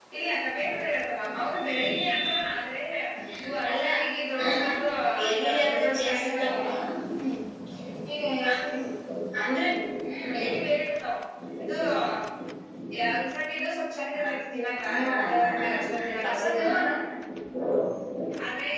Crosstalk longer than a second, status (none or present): present